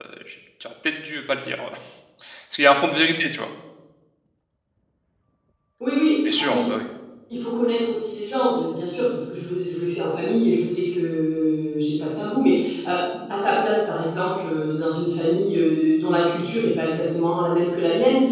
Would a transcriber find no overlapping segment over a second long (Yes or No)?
Yes